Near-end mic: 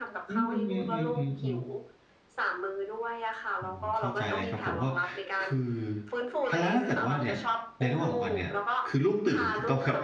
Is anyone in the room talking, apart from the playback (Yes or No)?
Yes